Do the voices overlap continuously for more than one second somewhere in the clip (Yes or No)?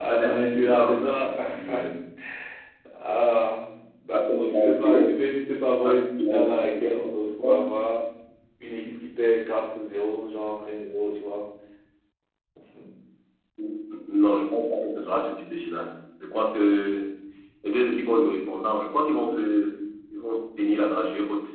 Yes